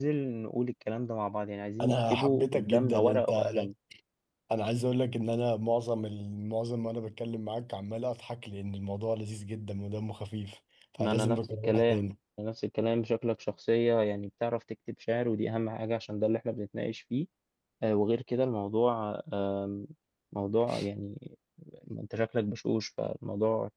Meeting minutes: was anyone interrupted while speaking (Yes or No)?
Yes